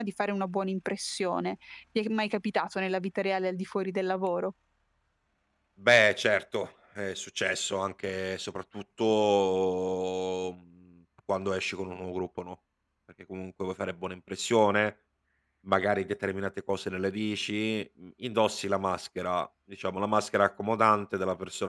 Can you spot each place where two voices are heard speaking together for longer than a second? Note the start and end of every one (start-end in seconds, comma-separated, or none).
none